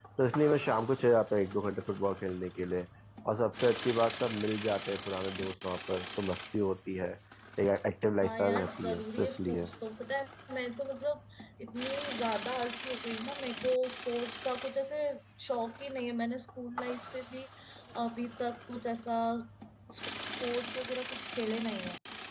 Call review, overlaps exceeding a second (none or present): present